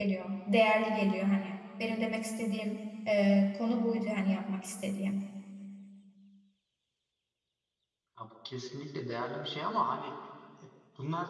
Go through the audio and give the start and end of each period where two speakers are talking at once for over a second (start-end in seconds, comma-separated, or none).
none